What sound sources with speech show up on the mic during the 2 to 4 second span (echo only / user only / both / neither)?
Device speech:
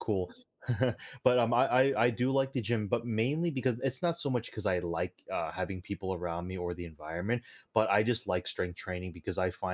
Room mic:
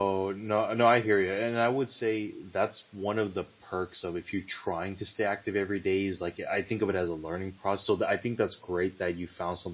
user only